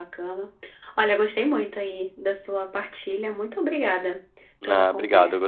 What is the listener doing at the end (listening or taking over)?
taking over